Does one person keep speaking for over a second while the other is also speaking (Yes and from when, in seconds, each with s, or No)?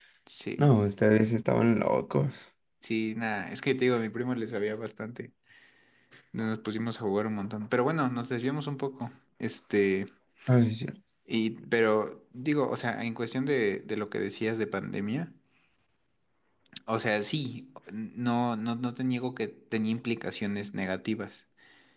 No